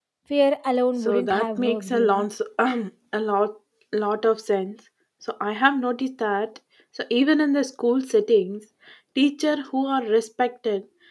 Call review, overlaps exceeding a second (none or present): present